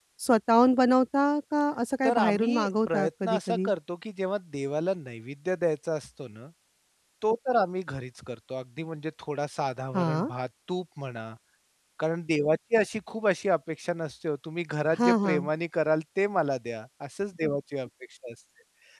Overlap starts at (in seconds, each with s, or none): 2.0 s